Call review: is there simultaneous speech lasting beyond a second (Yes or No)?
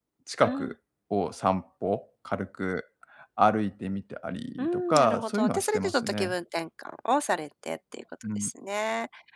Yes